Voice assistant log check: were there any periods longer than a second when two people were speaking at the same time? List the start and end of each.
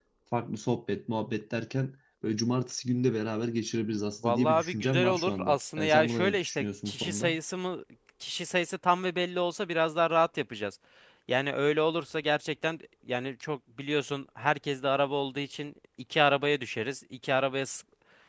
4.2-7.4

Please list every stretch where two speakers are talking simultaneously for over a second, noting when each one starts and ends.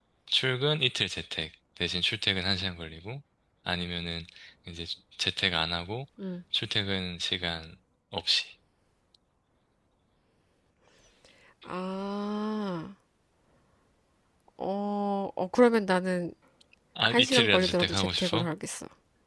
17.1-18.5

